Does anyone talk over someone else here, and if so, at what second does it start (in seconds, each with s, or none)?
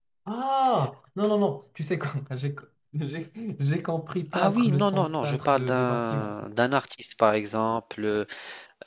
4.3 s